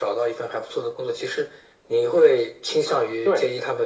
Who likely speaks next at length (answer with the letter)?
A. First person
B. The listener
A